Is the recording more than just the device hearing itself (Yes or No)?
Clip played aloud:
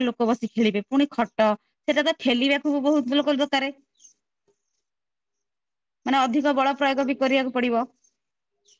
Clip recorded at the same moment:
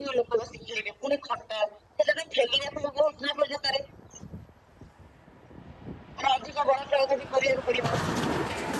No